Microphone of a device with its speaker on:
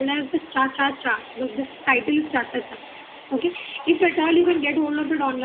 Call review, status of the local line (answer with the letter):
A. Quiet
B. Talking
A